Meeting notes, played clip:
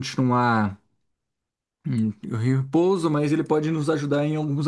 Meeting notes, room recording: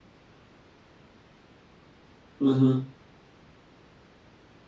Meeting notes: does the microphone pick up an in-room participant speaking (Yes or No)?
Yes